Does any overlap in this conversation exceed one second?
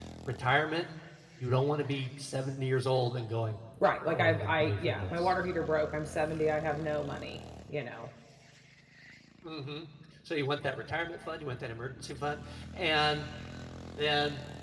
Yes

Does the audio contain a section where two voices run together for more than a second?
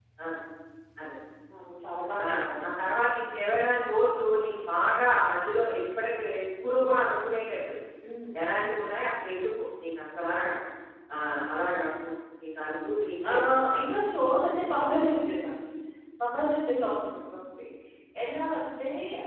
No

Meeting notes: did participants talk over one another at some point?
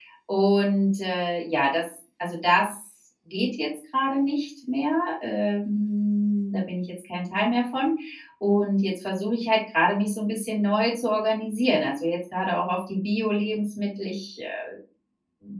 No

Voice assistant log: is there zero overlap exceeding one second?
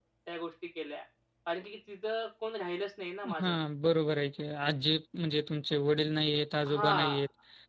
Yes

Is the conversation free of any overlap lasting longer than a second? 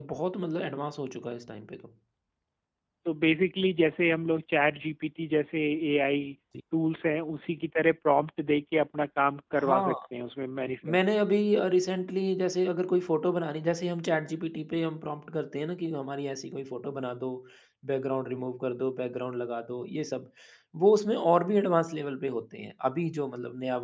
Yes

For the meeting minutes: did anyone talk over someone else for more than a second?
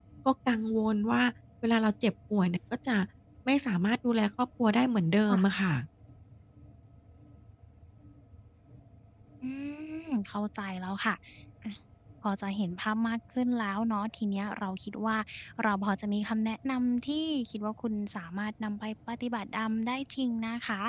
No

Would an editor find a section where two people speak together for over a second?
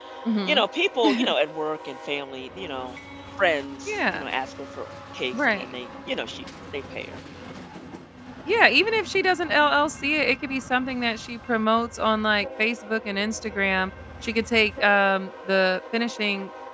No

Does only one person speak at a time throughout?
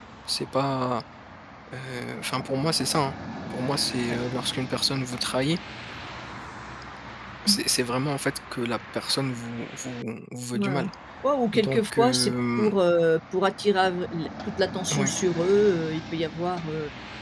No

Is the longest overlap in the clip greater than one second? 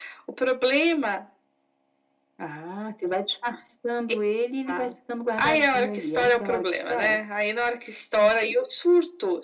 Yes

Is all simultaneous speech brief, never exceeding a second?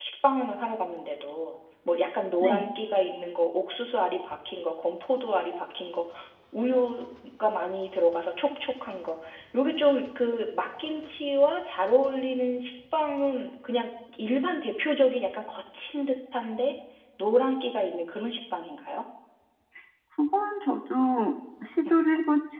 Yes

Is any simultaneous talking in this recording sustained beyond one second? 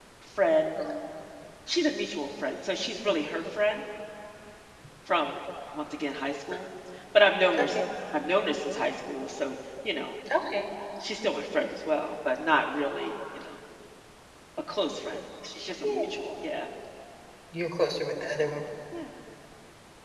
No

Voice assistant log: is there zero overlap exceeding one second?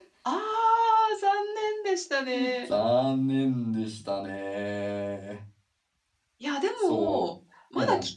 Yes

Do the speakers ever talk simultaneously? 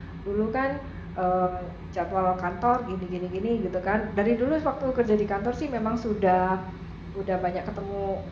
No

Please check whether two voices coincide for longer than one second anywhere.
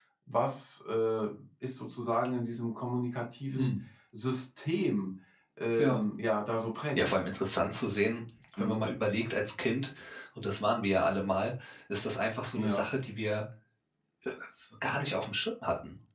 No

